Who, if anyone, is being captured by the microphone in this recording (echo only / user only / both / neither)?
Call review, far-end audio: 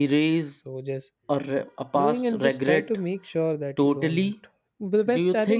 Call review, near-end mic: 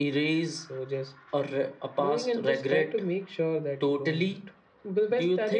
echo only